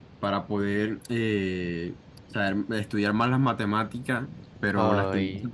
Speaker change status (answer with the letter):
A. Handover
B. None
B